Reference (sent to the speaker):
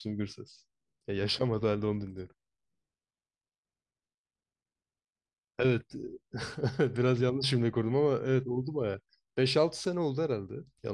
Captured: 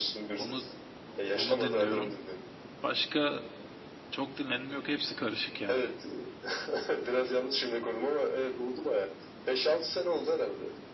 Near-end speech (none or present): present